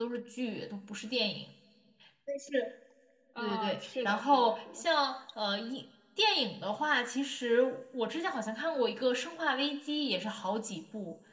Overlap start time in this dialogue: 3 s

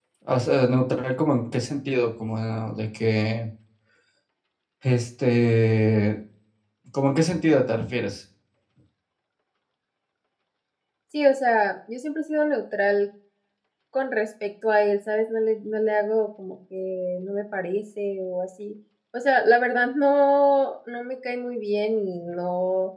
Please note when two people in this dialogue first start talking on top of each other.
none

